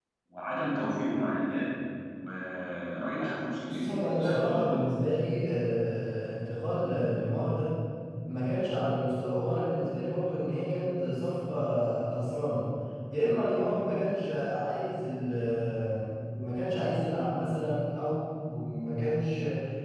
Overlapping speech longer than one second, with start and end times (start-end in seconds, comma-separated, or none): 3.6-4.8